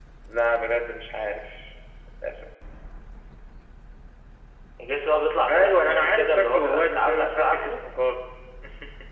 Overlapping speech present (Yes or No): Yes